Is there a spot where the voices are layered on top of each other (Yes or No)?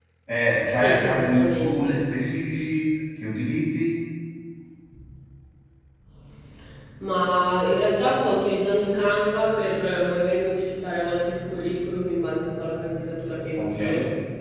Yes